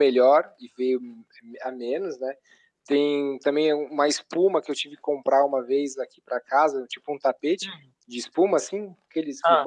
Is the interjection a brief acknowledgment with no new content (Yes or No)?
Yes